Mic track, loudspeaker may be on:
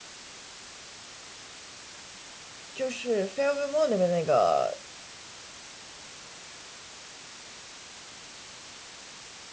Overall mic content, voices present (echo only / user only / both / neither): user only